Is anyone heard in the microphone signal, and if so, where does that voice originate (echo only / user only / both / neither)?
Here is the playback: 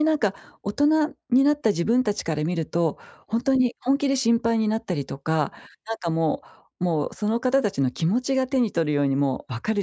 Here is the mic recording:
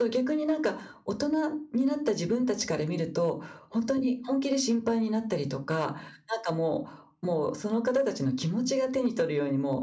echo only